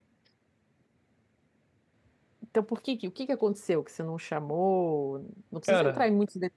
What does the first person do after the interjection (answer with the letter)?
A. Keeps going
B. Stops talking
A